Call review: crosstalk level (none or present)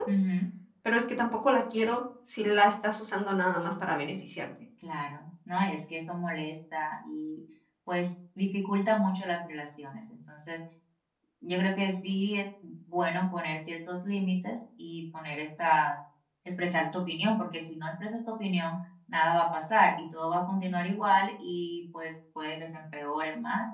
none